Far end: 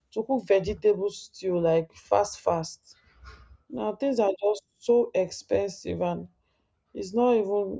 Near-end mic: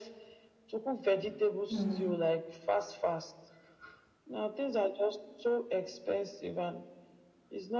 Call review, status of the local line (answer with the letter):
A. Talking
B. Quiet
A